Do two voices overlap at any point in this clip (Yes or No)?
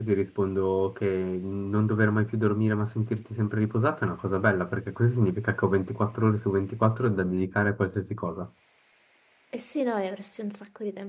No